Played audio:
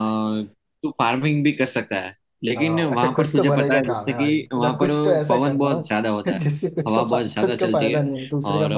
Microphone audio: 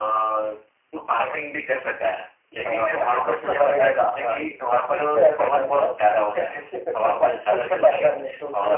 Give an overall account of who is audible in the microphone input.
echo only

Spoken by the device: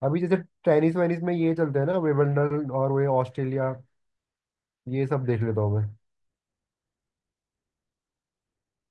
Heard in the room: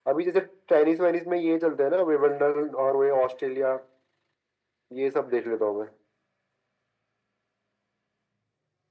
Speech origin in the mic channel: echo only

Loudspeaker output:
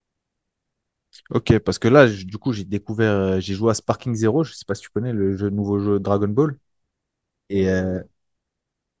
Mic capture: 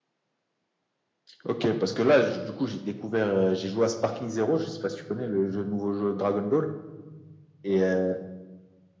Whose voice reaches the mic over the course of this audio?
echo only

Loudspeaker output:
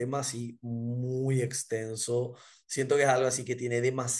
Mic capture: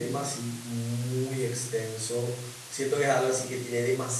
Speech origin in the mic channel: echo only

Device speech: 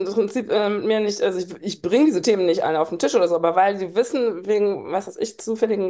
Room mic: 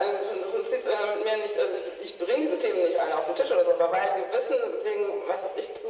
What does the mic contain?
echo only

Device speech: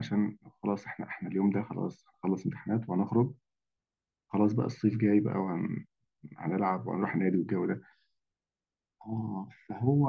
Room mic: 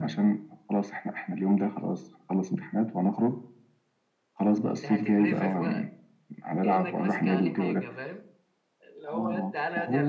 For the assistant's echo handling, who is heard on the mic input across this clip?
both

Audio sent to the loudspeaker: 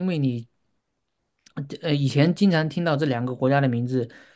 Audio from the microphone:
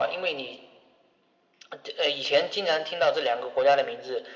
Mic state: echo only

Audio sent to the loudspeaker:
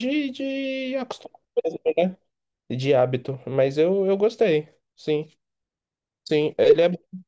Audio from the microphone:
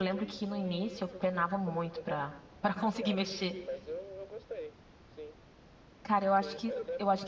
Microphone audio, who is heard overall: both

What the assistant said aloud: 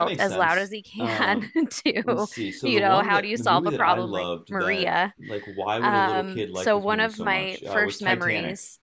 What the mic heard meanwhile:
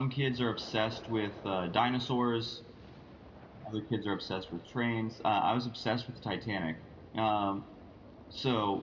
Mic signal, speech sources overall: user only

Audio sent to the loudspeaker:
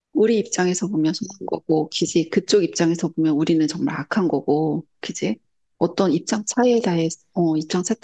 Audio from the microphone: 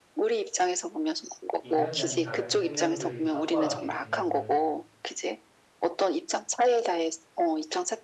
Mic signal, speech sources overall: both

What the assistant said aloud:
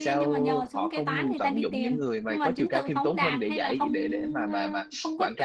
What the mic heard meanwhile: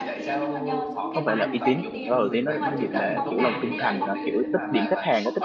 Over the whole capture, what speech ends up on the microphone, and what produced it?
both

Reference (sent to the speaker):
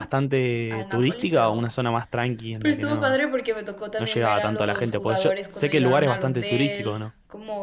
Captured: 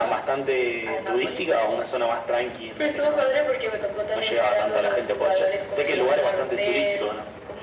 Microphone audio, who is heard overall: echo only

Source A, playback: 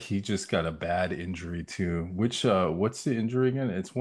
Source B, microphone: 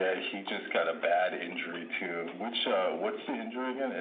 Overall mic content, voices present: echo only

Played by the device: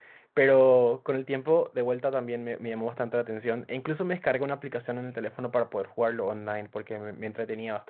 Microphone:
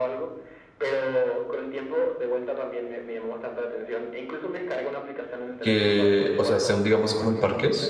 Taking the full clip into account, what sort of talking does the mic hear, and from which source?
both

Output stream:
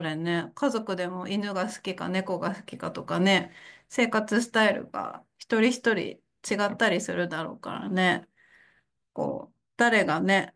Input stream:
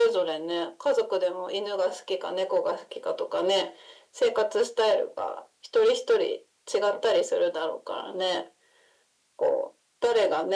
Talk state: echo only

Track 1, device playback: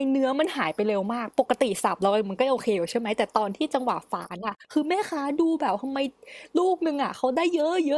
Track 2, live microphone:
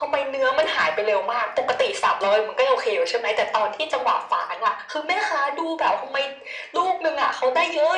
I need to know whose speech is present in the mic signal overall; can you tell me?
echo only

